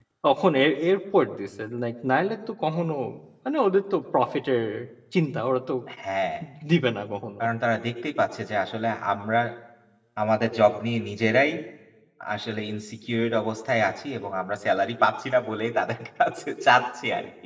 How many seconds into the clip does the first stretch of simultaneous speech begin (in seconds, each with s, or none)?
none